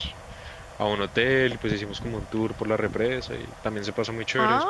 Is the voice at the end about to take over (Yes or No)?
Yes